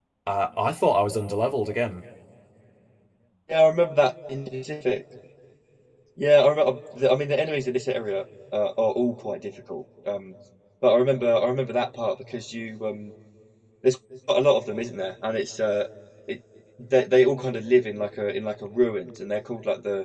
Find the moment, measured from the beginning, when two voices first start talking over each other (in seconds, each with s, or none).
none